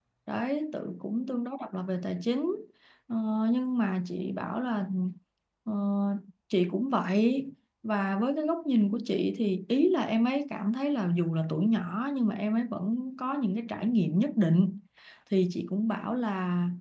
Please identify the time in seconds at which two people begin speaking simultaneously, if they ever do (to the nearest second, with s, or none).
none